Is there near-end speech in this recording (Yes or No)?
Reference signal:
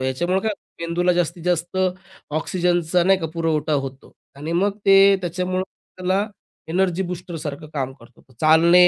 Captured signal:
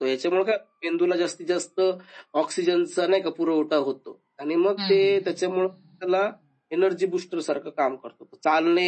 Yes